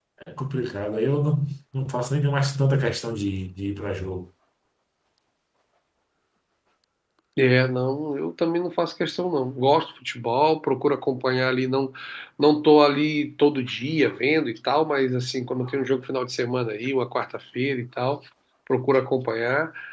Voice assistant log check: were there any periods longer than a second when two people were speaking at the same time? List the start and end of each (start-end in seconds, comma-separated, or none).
none